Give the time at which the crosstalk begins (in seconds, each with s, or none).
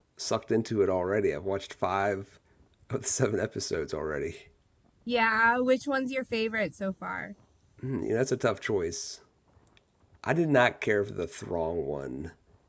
none